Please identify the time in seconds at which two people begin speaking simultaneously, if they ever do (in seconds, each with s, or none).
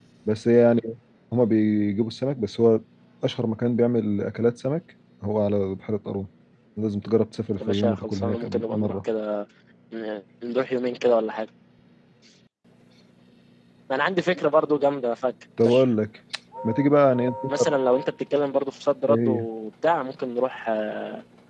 7.6 s